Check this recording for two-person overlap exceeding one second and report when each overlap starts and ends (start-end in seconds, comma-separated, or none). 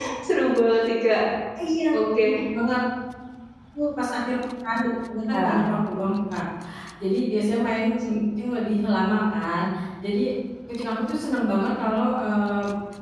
none